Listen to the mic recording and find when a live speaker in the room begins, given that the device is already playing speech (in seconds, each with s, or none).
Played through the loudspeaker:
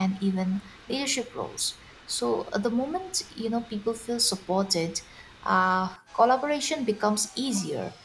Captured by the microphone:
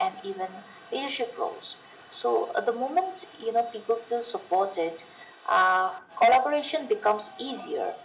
none